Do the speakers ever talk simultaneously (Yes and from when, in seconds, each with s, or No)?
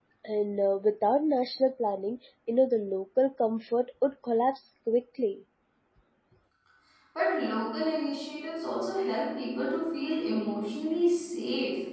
No